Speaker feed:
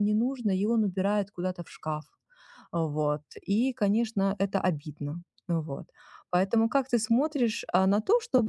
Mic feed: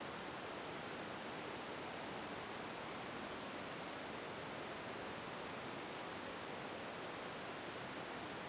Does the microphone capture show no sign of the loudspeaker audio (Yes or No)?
Yes